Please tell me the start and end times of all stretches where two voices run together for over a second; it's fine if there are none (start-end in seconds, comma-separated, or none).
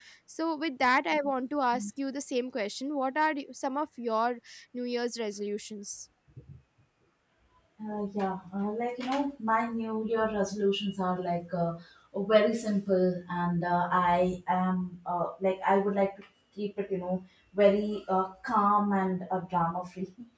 none